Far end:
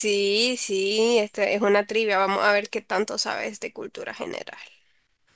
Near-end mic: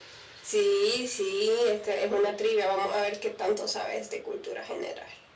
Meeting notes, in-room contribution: none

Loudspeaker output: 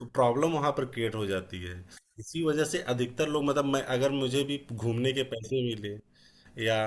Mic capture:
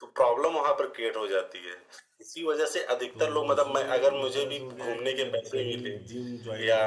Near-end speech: present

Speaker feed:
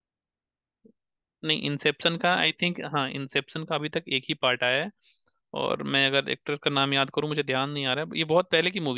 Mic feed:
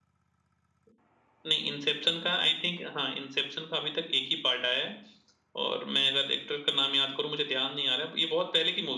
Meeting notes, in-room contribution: none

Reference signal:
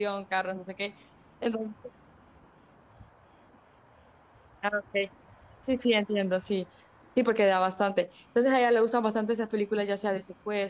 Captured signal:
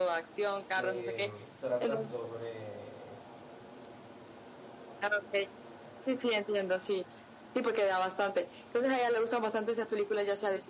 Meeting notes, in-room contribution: present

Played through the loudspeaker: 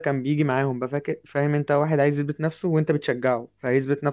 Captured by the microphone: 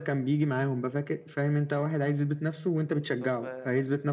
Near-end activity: present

